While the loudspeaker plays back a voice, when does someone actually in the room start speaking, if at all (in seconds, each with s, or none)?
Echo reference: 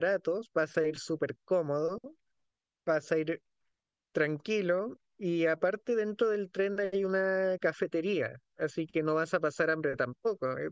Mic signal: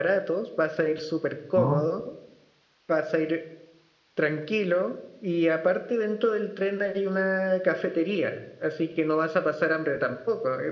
1.6 s